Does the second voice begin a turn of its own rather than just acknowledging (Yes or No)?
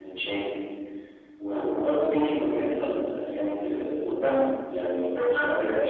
Yes